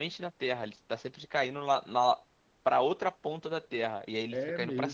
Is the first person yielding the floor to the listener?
Yes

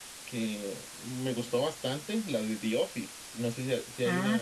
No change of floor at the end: No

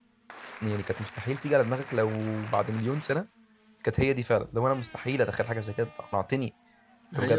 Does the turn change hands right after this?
No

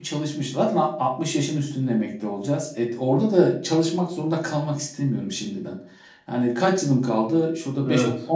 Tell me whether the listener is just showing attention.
Yes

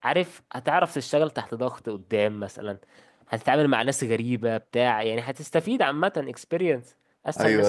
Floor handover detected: Yes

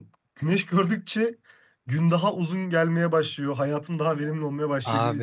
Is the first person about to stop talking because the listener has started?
Yes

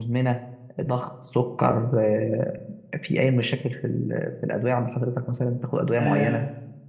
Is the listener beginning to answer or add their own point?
Yes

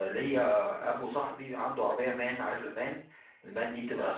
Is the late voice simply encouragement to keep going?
Yes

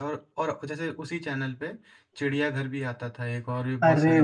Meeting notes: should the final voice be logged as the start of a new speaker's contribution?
Yes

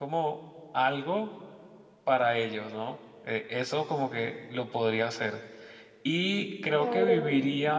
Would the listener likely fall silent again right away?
Yes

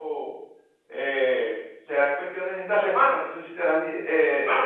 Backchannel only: No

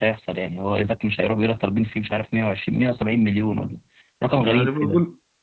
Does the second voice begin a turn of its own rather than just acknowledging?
Yes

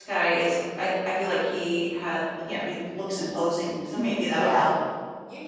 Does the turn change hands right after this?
Yes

